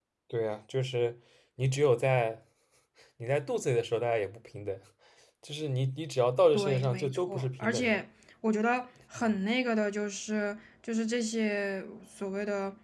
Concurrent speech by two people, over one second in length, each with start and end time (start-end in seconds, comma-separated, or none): 6.5-8.0